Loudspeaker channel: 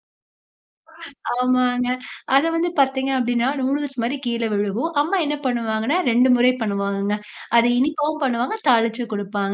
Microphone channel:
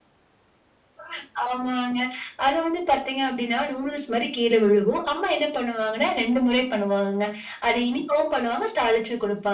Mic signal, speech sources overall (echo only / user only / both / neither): echo only